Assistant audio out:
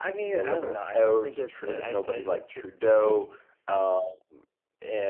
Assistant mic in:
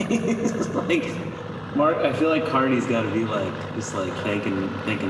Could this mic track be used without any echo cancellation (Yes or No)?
Yes